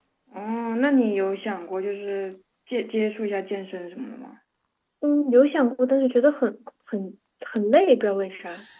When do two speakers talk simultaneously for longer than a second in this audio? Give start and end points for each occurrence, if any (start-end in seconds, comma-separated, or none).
none